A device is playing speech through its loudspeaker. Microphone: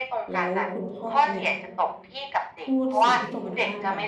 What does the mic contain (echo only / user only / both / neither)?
both